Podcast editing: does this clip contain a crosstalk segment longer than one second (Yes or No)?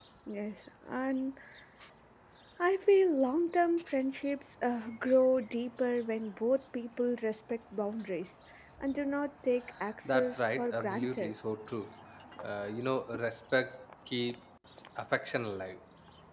Yes